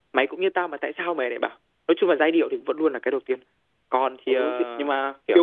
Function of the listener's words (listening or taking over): taking over